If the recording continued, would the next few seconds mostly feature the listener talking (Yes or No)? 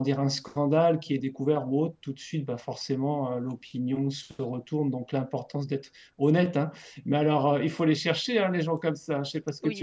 Yes